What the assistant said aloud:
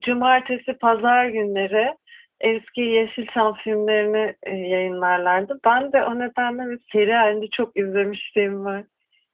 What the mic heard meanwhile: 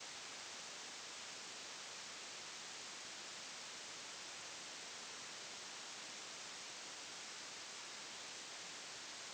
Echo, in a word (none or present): none